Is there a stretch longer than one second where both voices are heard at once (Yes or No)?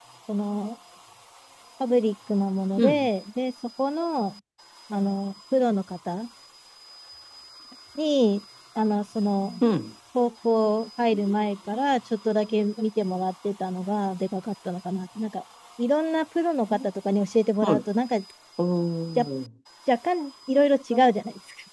No